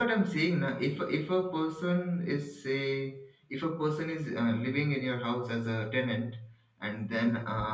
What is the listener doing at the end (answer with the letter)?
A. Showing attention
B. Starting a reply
A